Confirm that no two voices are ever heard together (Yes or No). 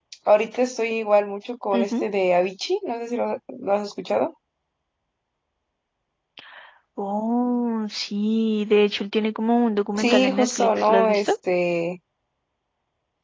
No